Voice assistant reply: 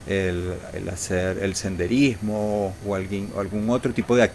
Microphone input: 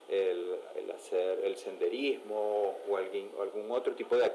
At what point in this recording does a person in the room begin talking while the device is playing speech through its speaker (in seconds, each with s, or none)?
none